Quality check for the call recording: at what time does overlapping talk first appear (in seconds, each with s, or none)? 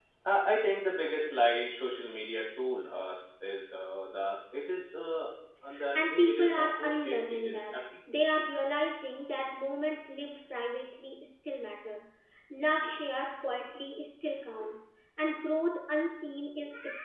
5.7 s